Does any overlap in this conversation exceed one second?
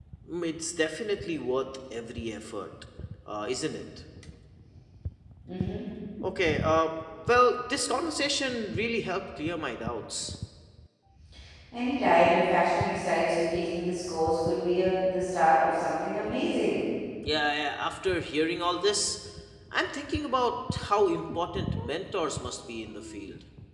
No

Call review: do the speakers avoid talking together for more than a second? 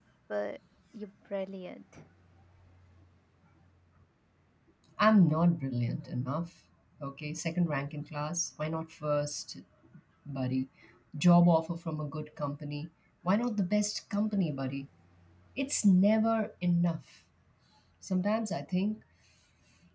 Yes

